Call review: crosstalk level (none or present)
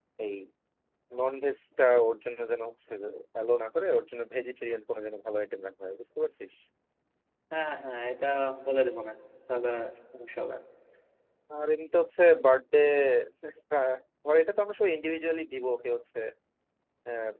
none